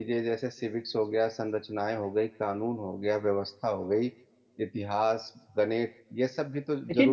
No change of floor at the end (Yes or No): No